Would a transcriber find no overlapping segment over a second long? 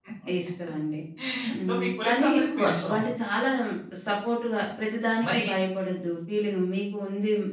No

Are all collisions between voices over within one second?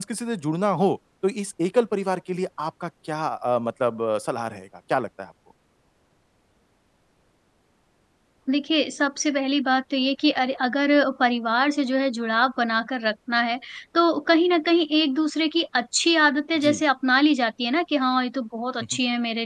Yes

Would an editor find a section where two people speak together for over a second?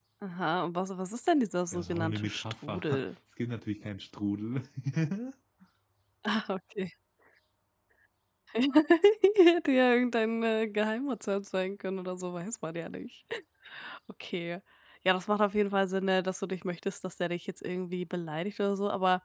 Yes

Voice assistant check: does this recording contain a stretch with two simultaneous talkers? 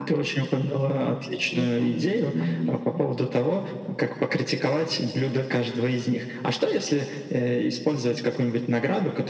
Yes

